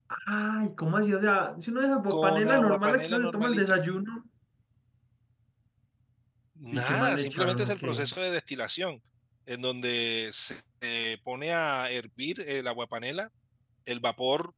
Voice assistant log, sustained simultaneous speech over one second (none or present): present